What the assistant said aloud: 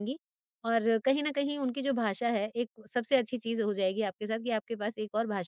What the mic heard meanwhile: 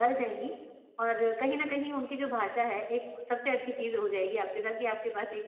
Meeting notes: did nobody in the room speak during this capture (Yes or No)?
Yes